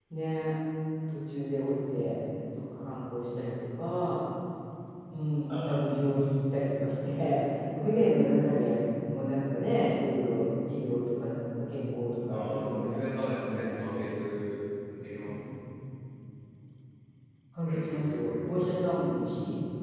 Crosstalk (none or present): present